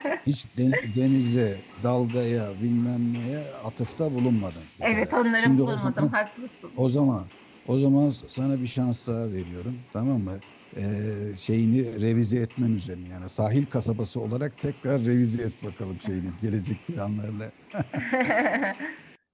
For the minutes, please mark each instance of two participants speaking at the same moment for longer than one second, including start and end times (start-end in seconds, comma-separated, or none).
4.8-6.1